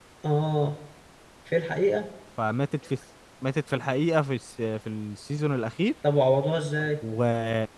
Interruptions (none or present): none